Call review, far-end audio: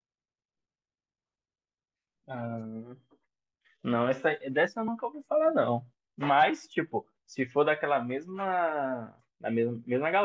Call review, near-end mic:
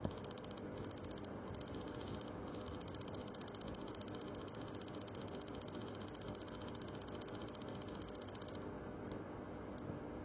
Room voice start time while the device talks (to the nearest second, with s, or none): none